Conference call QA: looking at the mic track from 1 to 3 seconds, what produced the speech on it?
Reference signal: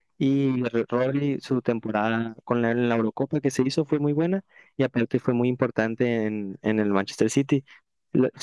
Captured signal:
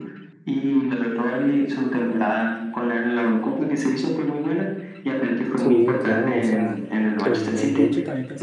echo only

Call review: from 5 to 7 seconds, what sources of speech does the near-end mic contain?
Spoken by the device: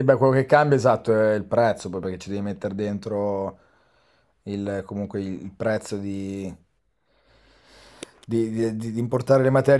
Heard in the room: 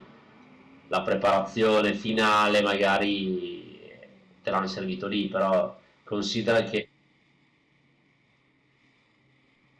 user only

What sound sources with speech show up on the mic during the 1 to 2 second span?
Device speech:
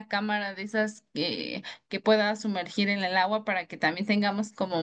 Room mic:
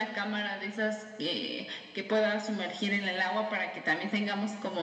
echo only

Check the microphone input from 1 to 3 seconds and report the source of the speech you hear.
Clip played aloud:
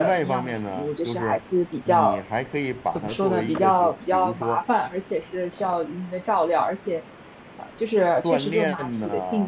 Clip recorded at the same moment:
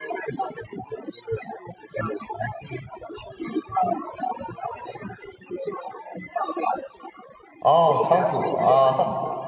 echo only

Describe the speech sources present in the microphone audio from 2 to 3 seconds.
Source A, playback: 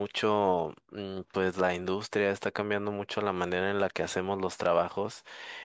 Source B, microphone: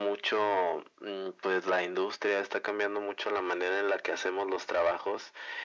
echo only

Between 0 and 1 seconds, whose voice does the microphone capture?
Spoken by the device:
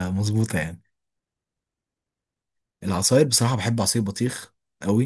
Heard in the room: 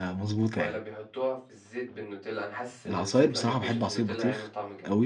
both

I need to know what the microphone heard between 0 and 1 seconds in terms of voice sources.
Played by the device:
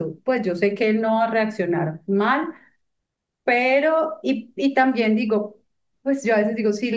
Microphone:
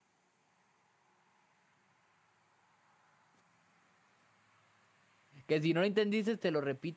neither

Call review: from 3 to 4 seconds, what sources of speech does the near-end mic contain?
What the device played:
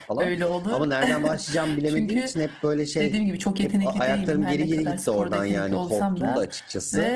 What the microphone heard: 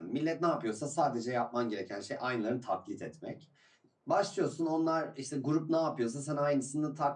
user only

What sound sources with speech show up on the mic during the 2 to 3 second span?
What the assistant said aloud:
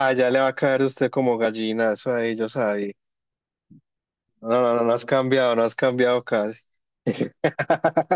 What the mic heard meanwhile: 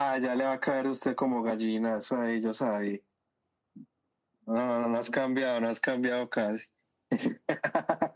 echo only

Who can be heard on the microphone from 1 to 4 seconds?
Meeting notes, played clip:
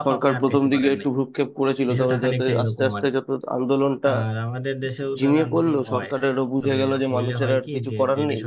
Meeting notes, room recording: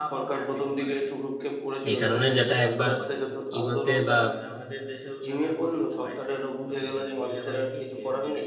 both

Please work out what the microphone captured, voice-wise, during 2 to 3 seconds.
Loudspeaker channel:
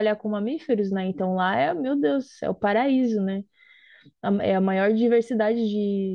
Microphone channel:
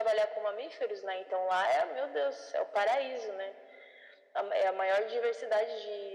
echo only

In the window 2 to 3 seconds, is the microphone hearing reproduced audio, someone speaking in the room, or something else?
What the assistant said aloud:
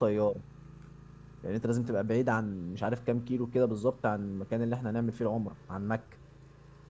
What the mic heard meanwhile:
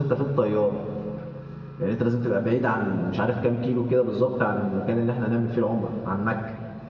echo only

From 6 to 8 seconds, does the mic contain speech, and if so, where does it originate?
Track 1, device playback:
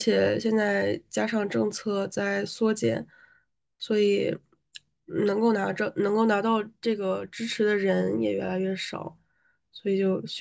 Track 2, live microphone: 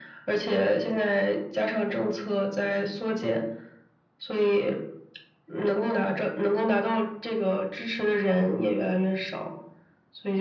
echo only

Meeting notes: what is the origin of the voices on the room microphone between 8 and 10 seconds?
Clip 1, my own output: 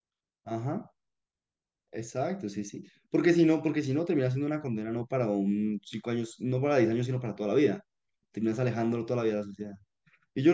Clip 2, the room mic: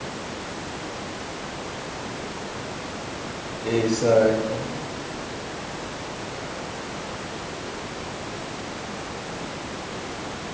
neither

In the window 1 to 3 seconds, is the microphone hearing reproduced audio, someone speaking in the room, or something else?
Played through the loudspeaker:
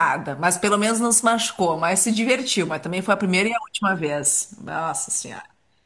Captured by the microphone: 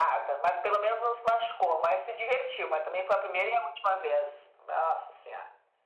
echo only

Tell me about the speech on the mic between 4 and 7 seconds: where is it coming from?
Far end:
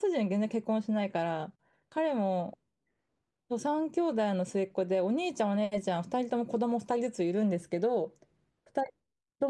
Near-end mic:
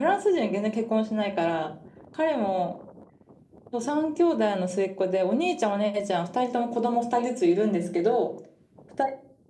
echo only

